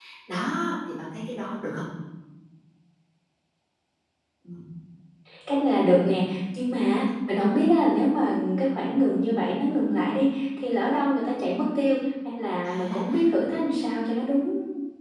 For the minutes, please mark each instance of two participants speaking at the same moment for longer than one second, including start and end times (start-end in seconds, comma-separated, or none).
none